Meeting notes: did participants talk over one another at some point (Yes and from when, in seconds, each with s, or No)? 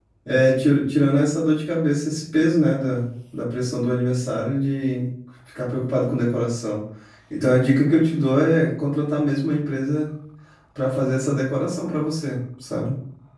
No